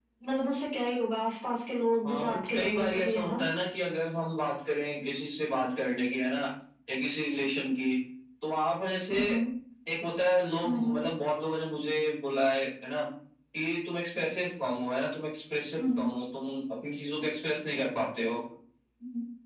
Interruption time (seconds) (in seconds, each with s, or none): 2.1 s